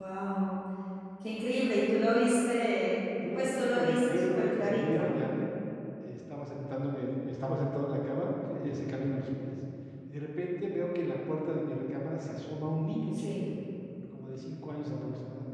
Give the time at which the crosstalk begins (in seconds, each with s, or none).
3.4 s